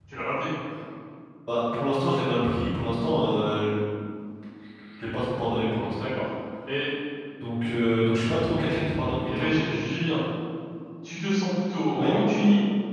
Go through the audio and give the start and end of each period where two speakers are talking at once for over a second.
none

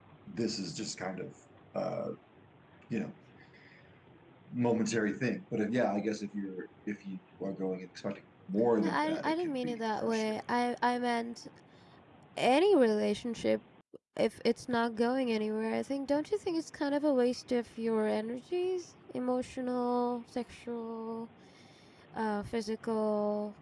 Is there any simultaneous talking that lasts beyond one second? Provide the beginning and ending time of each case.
8.8-10.4

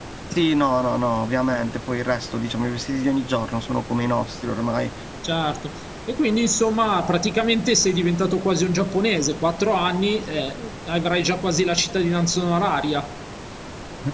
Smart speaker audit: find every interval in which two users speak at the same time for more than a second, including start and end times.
none

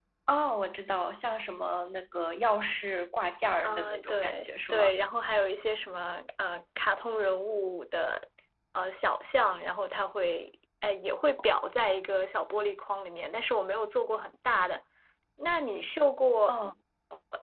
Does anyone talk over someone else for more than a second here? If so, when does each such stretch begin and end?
3.6-4.9

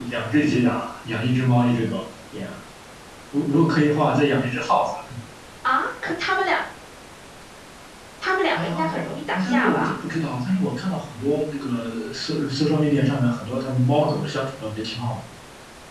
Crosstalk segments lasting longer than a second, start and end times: 8.6-10.0

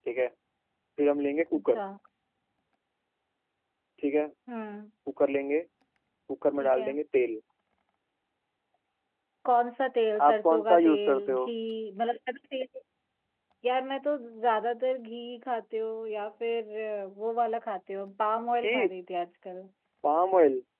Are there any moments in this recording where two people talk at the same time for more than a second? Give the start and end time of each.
10.3-11.5

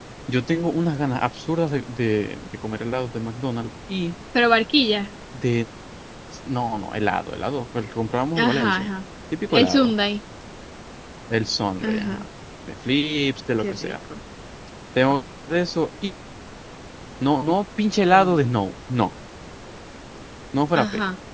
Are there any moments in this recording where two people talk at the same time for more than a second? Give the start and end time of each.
none

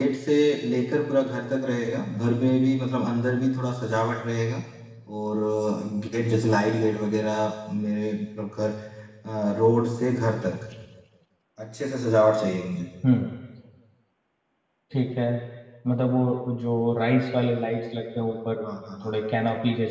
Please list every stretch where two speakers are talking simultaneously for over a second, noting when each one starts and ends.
none

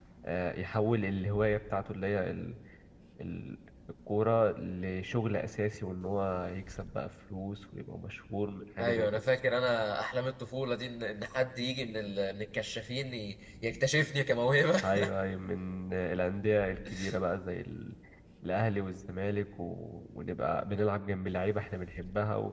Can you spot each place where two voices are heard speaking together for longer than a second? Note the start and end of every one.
none

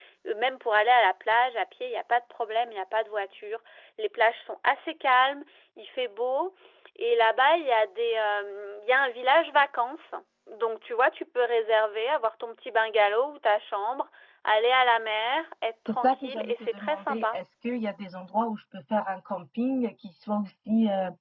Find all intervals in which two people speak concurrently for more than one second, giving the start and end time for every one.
15.9-17.4

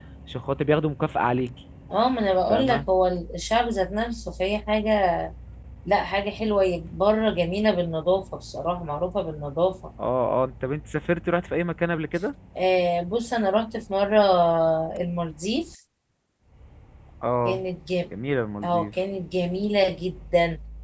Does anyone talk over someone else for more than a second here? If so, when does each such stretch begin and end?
none

